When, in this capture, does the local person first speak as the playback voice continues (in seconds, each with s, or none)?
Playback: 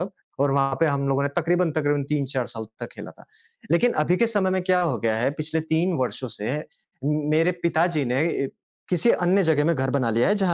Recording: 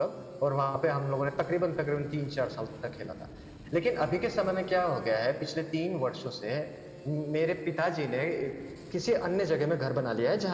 none